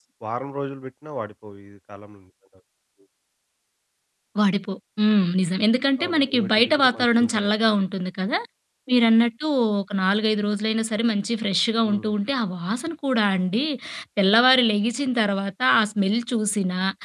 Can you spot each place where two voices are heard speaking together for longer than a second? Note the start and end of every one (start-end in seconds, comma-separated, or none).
6.0-7.5